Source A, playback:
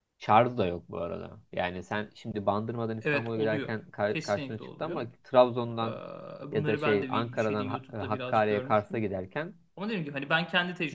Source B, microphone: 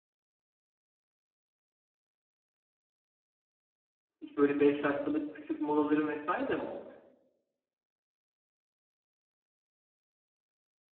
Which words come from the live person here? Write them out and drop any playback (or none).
Hiç böyle 5 dakikalık küçük molaların vesaire de mi olmuyor?